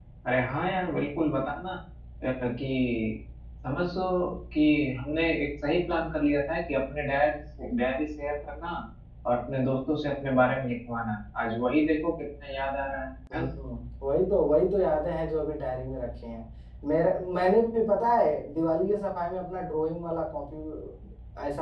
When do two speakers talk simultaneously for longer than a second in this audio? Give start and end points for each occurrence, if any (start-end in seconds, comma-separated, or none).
none